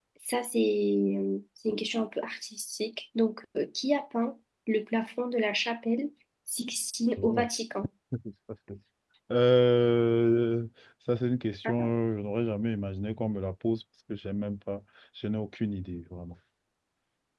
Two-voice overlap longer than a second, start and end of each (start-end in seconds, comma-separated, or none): none